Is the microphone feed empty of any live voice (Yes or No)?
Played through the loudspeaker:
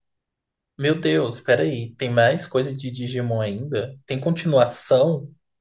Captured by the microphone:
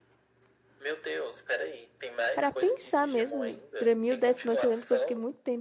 No